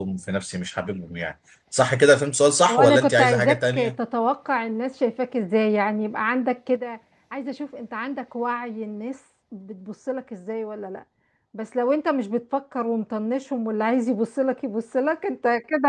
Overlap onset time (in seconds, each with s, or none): 2.7 s